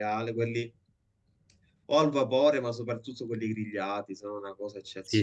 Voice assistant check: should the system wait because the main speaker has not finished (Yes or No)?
No